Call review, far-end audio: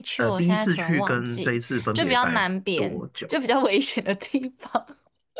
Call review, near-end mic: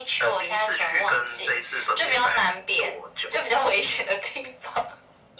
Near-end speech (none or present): none